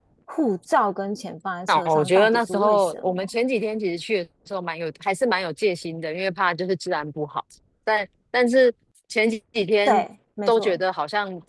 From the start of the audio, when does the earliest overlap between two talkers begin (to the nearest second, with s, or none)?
2 s